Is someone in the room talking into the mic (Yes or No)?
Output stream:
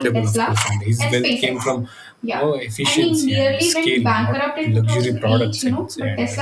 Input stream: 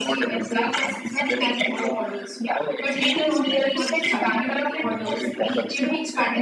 Yes